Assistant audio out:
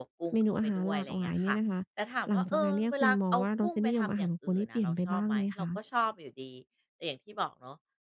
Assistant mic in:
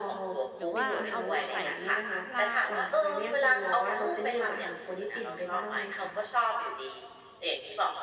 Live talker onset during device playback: 0.6 s

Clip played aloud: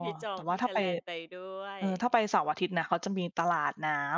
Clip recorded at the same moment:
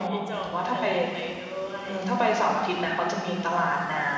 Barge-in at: none

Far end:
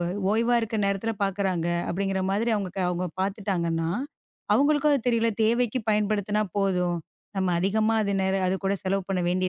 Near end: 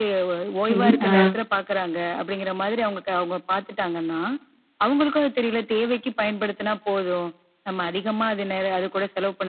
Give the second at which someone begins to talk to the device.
0.7 s

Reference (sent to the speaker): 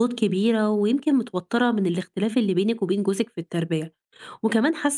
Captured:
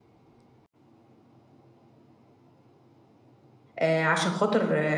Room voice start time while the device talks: 3.8 s

